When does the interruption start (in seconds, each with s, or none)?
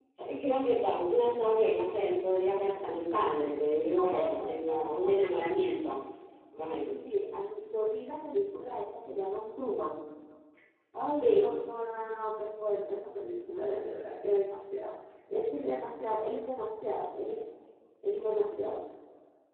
3.9 s